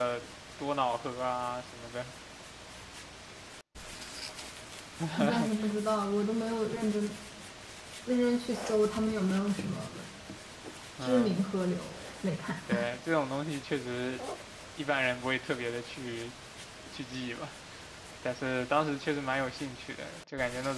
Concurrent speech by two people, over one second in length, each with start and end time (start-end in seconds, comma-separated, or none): none